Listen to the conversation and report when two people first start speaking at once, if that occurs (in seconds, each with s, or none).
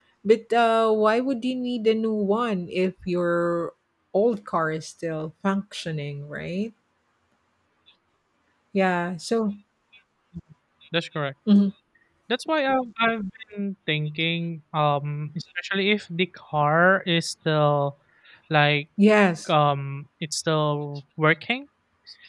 none